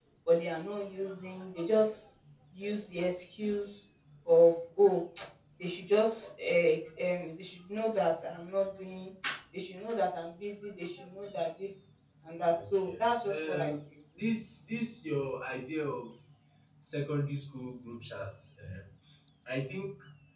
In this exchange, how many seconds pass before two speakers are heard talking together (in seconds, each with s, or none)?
12.5 s